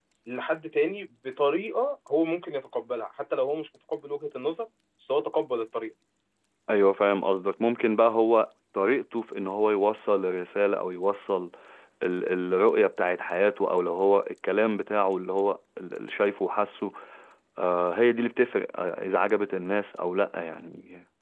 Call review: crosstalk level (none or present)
none